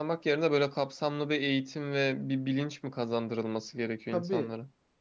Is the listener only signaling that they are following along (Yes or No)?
No